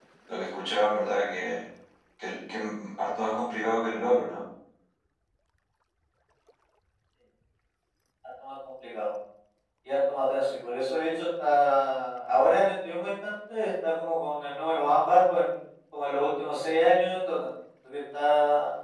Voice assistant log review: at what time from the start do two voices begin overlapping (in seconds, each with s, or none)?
none